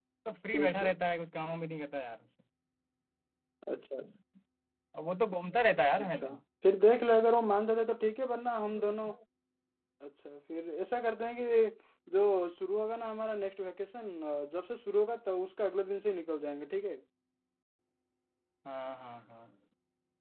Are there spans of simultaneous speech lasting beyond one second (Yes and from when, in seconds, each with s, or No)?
No